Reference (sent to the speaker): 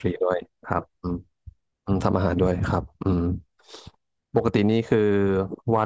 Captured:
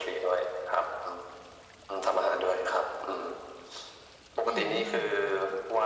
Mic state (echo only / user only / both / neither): both